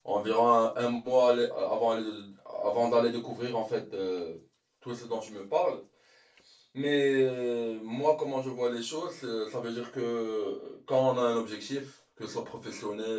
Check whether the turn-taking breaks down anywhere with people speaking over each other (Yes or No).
No